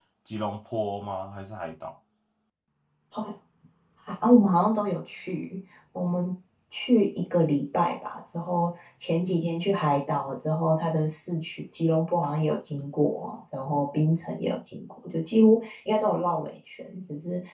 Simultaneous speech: No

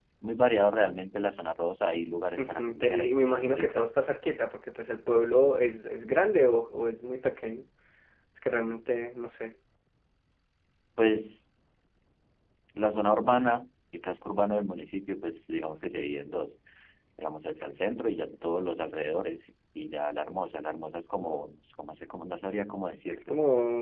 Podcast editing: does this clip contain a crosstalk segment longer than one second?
Yes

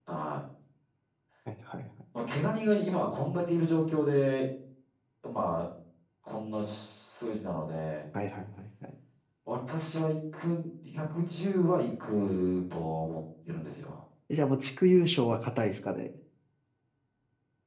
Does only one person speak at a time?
Yes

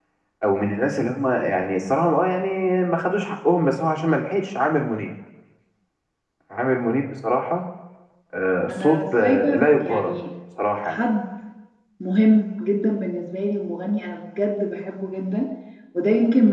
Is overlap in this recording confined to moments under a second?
No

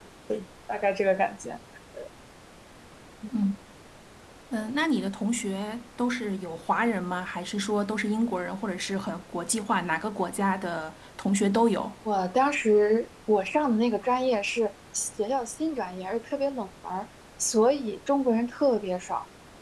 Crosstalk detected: No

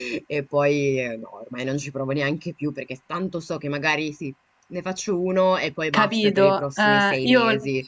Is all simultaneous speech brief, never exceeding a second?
No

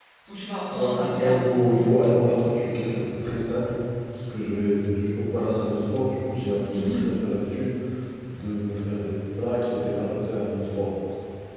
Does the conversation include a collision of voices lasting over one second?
Yes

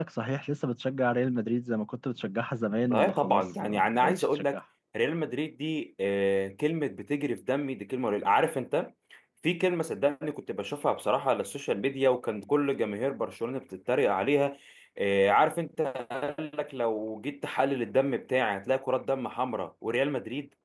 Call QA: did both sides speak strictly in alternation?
No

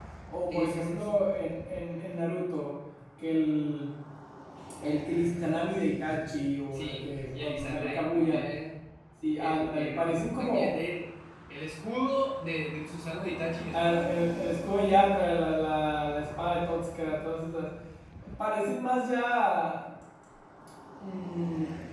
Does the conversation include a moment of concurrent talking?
Yes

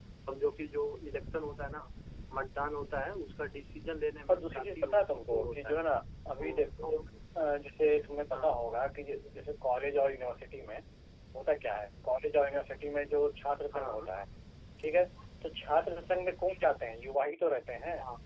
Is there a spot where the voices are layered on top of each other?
Yes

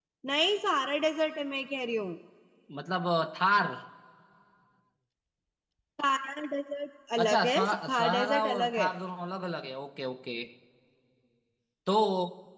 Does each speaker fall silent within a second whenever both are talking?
No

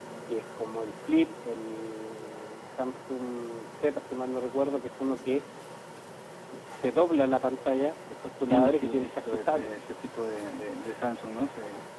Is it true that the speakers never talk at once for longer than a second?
No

